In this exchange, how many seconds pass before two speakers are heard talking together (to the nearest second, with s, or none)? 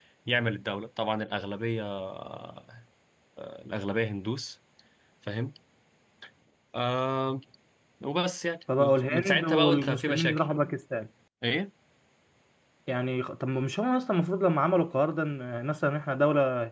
9 s